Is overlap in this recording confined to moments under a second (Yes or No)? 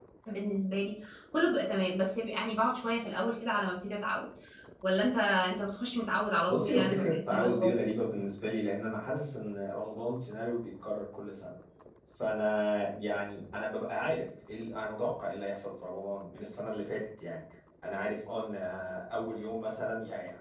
No